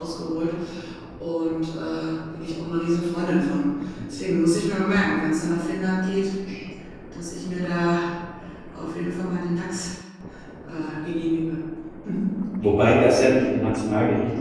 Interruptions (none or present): none